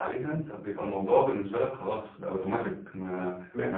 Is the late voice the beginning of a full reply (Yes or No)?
No